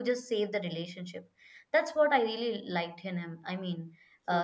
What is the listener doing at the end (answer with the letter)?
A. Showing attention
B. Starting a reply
A